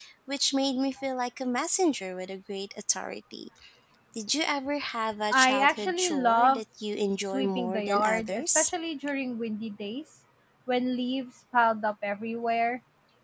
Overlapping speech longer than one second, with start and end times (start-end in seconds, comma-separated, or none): 5.3-6.6, 7.3-8.7